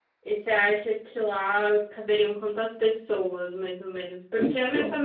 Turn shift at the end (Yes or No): No